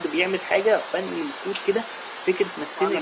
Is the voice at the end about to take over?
No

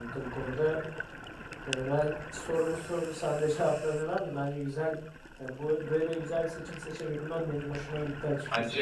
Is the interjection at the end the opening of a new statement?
Yes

